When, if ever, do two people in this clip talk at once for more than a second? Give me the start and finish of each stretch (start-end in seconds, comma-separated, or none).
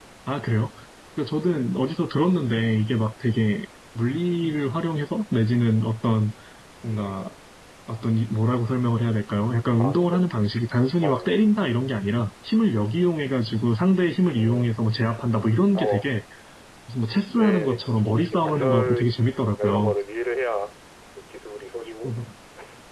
17.4-19.1